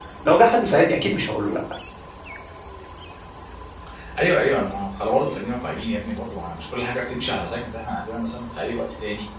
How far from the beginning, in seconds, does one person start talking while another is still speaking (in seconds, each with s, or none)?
none